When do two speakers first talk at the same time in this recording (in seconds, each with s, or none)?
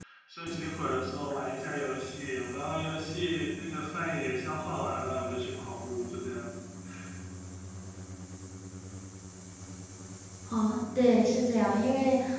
none